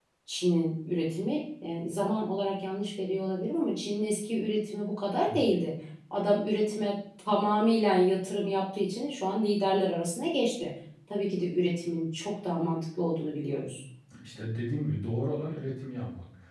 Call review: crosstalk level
none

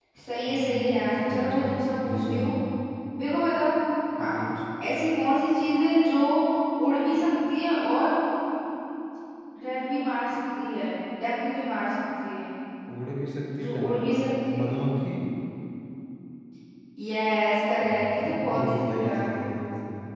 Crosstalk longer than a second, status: present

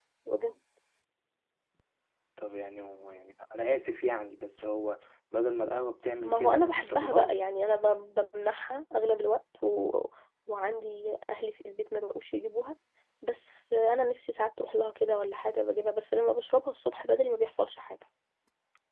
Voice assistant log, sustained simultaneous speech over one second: present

